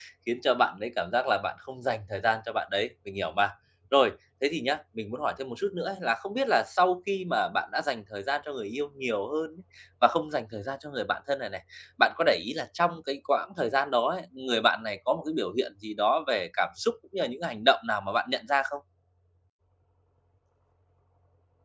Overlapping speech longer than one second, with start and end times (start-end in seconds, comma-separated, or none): none